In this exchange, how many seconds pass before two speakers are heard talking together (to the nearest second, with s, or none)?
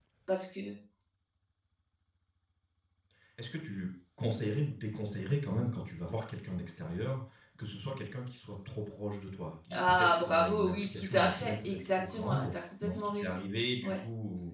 10 s